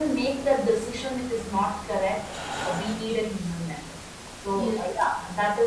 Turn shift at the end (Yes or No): No